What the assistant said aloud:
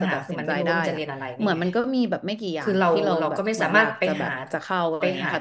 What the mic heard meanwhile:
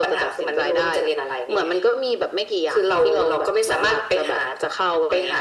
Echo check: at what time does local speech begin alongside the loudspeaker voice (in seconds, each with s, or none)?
none